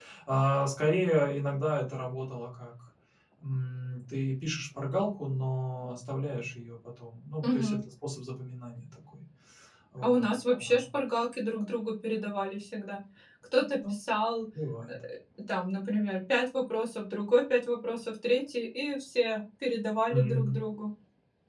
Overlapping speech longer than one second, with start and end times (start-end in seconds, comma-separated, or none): none